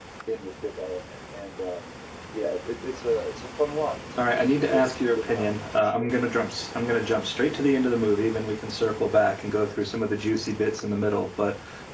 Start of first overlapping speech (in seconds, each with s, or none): 4.2 s